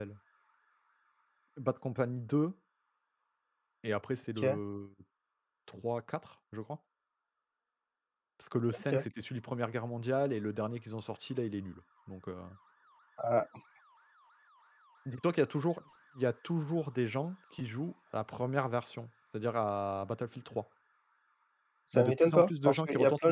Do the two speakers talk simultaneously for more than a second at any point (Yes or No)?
Yes